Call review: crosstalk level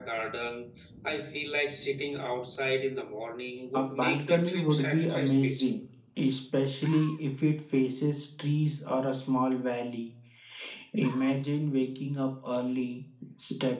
present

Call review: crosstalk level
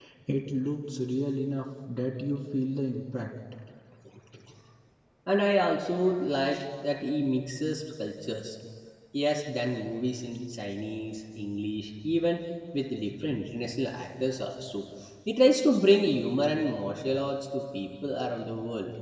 none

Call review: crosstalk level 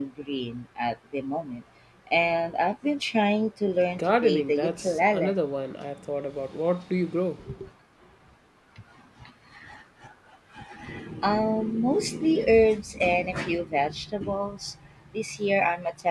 present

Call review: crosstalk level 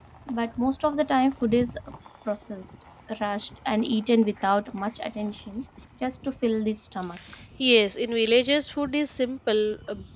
none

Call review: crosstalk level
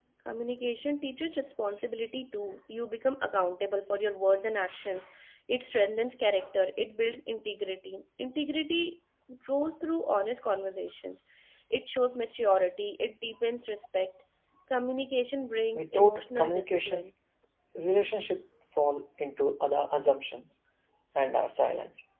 present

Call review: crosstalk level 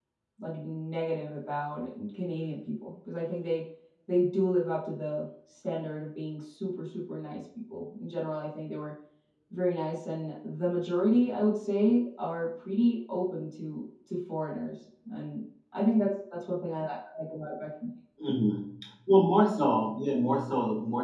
none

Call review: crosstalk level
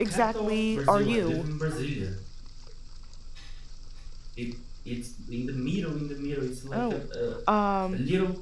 present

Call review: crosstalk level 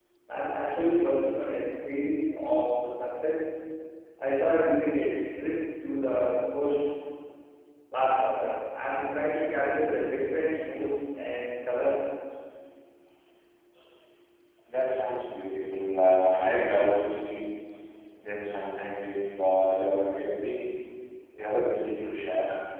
none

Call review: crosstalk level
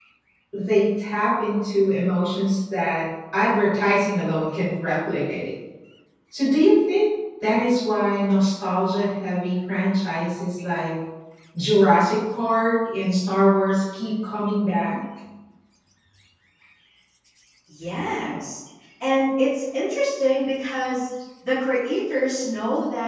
none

